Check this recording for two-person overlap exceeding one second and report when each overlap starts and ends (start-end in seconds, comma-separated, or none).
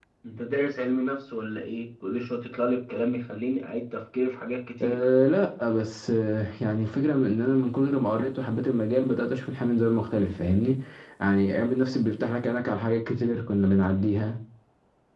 none